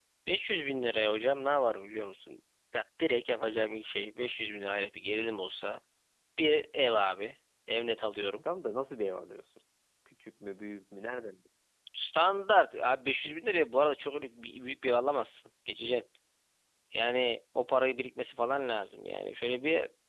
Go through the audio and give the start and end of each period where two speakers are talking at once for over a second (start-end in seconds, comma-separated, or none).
none